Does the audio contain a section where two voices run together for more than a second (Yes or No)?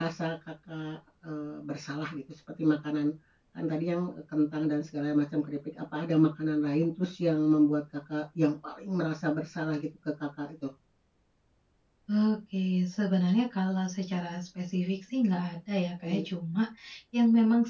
No